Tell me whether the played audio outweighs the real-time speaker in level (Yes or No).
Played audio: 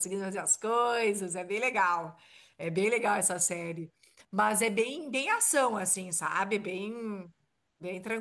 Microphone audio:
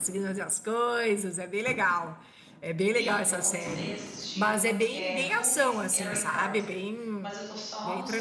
Yes